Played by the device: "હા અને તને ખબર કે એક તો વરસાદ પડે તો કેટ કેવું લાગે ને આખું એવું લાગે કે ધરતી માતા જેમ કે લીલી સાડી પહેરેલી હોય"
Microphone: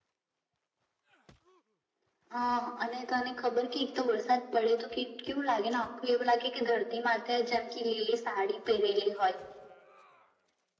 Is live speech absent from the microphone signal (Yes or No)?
Yes